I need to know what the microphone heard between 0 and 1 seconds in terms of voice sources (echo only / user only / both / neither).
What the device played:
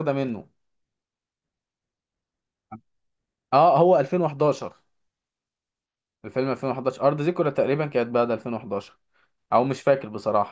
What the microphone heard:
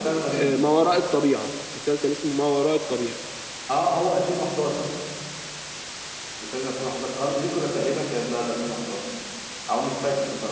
both